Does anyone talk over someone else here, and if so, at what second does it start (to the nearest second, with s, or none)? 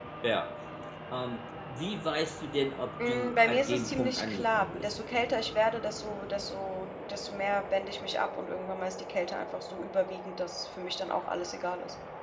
3 s